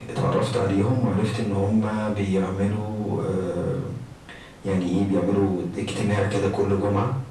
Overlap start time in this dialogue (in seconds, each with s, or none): none